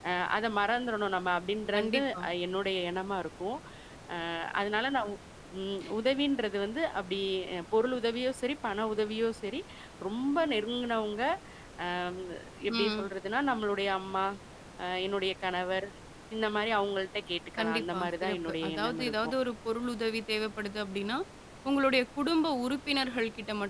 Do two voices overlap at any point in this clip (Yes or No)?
Yes